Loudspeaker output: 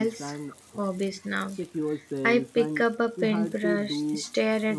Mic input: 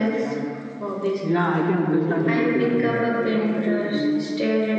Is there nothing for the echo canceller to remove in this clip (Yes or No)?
No